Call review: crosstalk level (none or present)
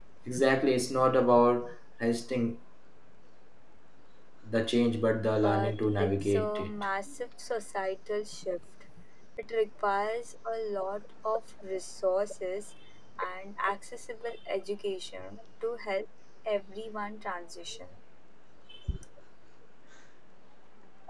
present